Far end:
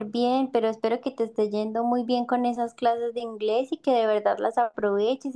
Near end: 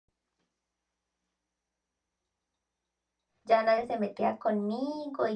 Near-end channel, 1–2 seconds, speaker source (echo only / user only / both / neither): neither